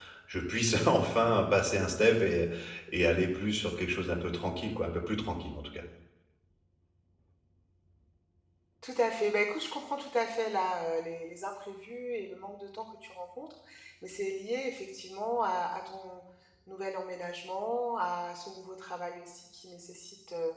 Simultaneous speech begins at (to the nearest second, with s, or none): none